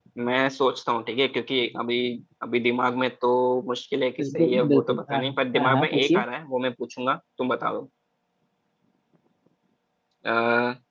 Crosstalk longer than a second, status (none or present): present